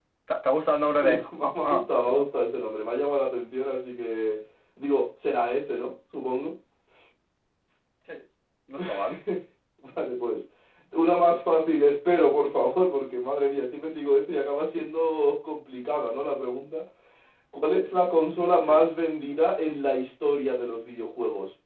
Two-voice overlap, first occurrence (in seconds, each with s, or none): 0.9 s